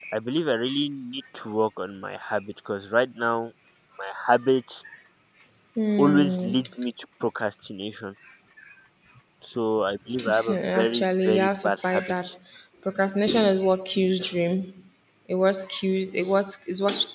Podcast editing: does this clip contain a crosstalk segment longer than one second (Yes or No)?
Yes